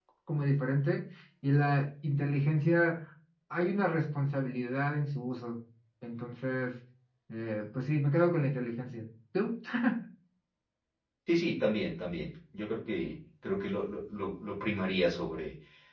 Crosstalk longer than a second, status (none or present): none